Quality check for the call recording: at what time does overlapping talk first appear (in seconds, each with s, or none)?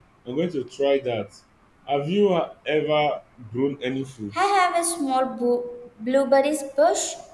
none